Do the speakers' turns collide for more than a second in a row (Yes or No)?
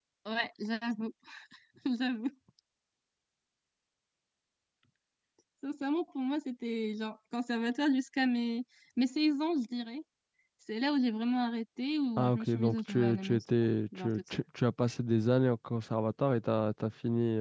Yes